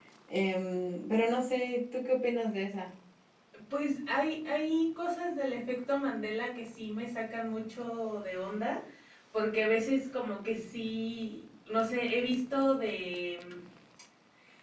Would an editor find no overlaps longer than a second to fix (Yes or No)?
Yes